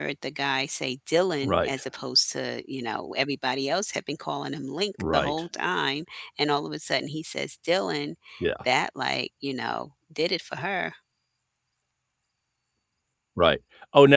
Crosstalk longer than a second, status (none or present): none